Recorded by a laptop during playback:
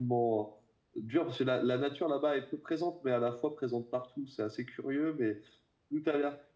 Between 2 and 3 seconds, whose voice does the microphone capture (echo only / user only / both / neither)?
user only